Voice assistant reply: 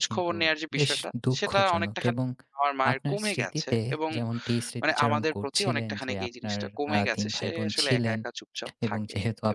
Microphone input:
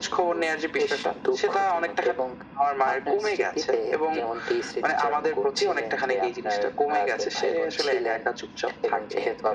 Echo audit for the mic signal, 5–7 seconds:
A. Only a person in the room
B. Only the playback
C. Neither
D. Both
B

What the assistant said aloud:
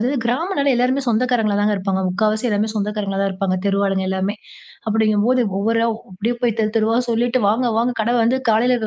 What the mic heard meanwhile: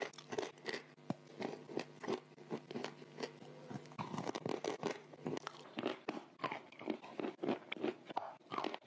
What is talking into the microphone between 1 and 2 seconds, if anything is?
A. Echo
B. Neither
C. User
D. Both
B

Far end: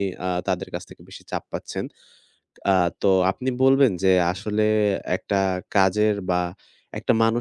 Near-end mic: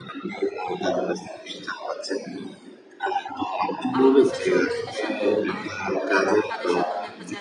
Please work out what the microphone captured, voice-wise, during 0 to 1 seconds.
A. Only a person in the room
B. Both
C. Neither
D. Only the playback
D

